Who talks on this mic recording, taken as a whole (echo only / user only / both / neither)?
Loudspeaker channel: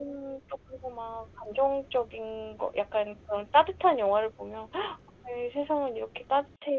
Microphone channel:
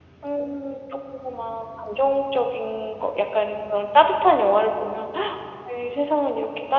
echo only